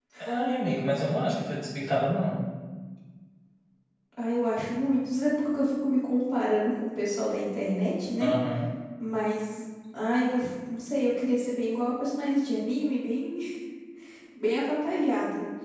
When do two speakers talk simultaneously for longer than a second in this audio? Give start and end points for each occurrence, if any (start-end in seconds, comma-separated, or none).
none